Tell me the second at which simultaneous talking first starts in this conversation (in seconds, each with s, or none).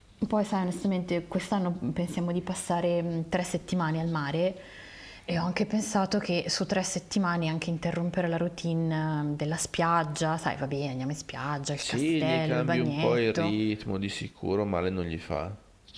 11.8 s